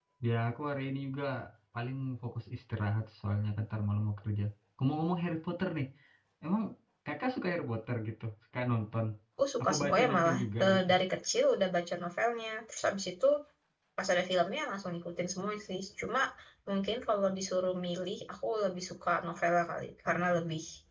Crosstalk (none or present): present